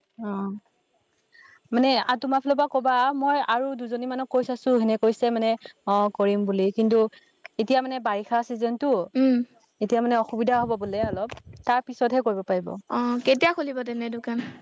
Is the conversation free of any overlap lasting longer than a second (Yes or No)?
Yes